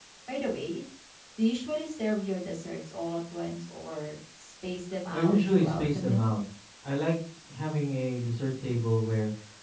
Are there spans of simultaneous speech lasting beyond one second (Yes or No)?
Yes